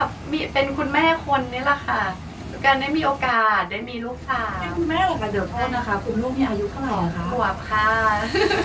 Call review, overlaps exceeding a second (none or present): none